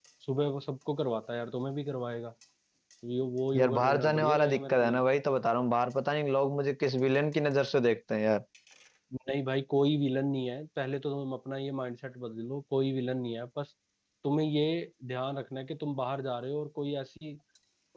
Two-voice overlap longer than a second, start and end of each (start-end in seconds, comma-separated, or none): 3.5-5.0